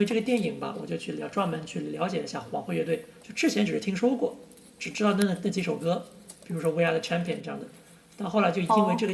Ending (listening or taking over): listening